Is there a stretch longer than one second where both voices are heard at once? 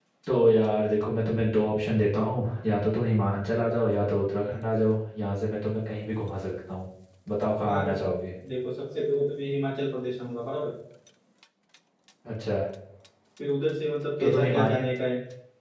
No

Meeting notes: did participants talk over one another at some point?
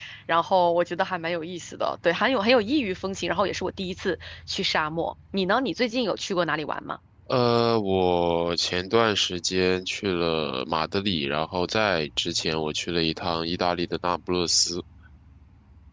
No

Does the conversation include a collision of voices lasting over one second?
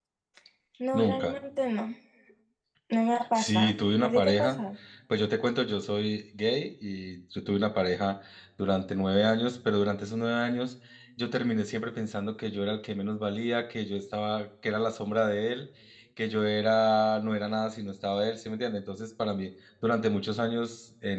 Yes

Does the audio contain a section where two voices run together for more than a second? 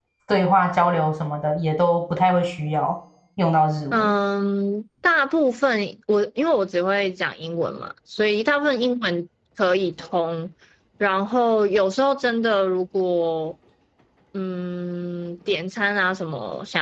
No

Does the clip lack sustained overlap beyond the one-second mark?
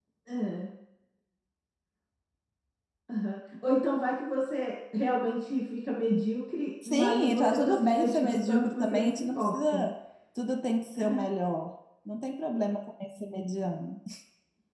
No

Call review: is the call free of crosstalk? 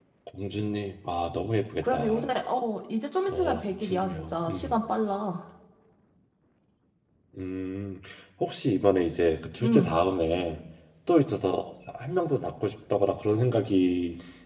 No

